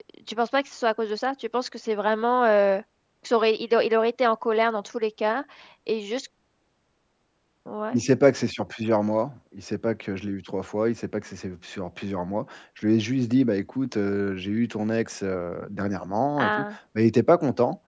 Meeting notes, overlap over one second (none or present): none